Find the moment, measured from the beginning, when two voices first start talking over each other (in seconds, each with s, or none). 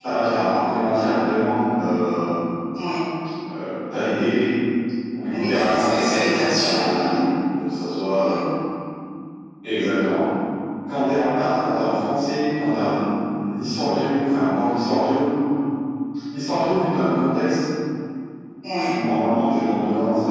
5.3 s